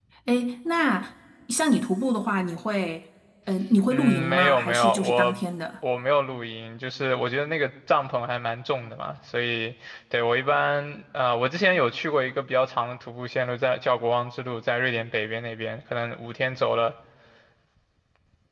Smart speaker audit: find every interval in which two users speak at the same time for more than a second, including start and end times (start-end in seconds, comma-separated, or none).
3.9-5.4